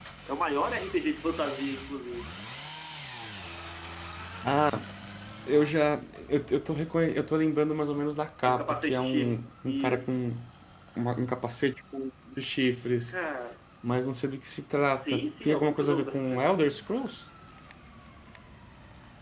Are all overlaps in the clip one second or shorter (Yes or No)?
No